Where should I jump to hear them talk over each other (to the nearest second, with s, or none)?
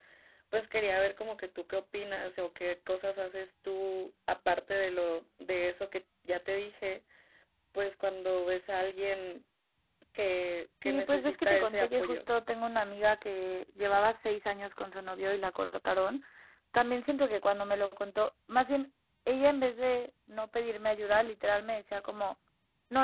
11 s